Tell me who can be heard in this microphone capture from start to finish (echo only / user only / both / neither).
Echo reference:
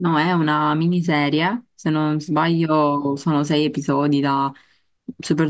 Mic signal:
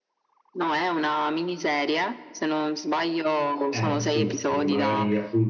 both